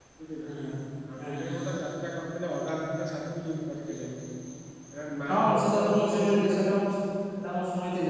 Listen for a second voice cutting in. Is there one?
Yes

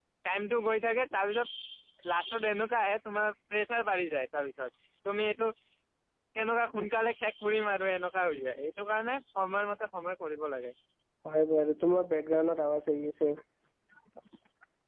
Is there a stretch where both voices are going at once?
No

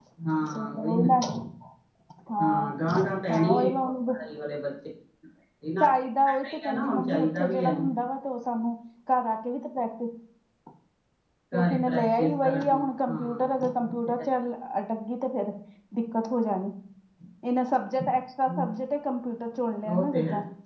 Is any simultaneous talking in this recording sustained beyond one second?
Yes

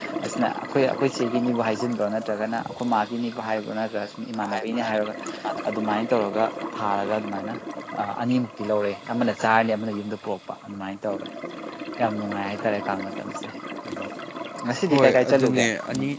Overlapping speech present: Yes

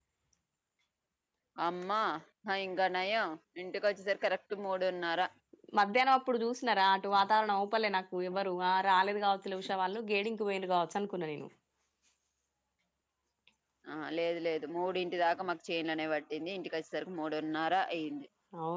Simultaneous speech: No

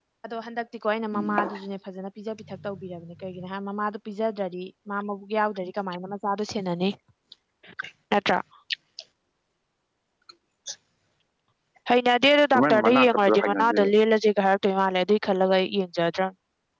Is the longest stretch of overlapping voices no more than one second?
No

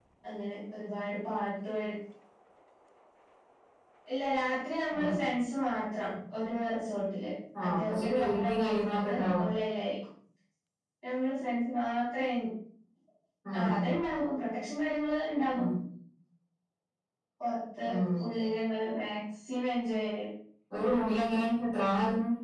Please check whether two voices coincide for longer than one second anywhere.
Yes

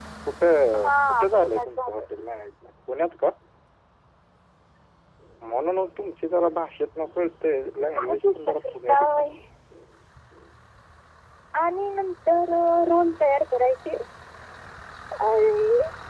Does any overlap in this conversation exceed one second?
Yes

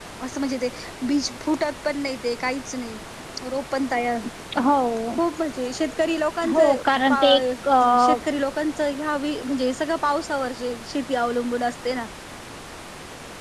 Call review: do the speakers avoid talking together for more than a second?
Yes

